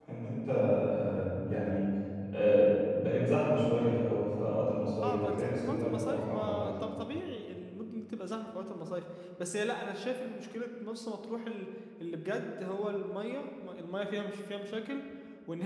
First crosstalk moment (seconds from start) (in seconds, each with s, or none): 5.0 s